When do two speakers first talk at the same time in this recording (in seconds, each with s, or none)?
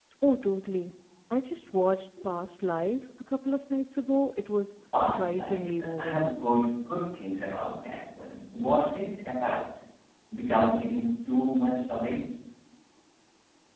4.9 s